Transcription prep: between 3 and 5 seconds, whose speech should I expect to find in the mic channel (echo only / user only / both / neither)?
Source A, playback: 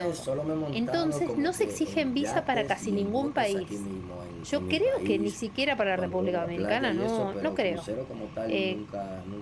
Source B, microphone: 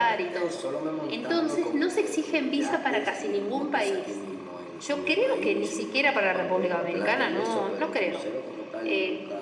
echo only